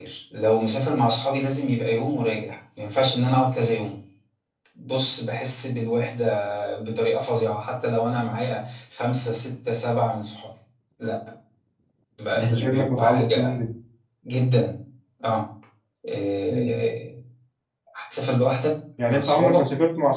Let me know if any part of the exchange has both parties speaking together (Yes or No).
Yes